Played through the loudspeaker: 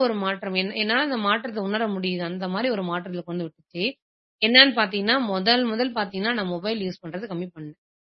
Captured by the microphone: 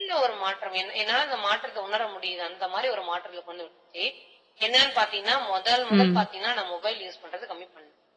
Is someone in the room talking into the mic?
Yes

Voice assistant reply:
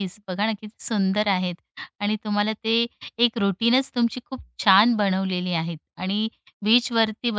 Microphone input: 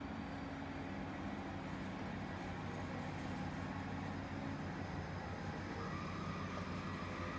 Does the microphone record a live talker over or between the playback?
No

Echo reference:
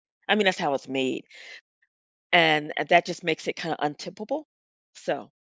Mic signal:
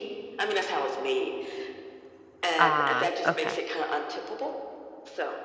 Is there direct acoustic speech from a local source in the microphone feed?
Yes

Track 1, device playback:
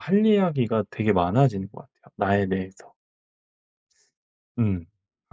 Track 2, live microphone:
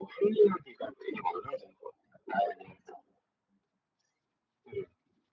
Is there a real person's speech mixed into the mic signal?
No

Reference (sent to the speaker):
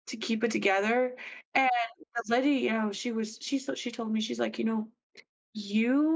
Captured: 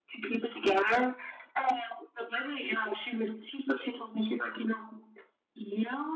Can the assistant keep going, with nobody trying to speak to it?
Yes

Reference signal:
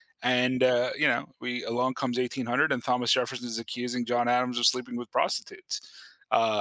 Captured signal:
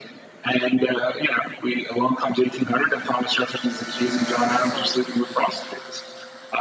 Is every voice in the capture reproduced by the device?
Yes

